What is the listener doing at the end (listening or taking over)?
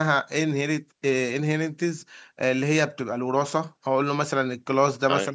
listening